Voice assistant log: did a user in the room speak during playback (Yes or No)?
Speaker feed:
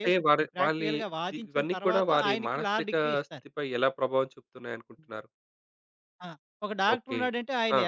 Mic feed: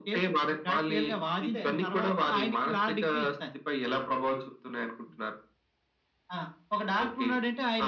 Yes